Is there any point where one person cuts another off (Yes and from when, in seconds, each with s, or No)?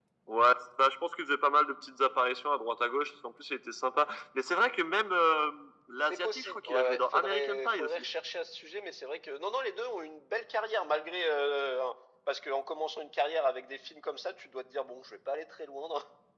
Yes, from 6.0 s